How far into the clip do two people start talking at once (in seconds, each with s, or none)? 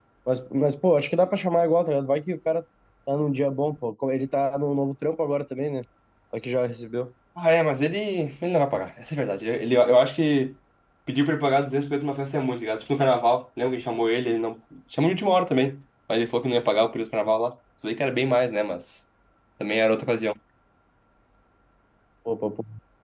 none